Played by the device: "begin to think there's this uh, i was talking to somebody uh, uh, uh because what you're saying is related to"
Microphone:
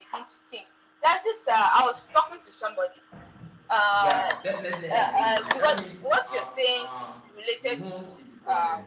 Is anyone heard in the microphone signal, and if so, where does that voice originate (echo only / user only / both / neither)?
both